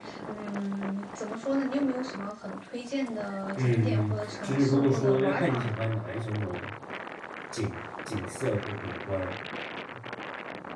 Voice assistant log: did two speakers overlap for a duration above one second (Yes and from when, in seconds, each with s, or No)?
Yes, from 3.5 s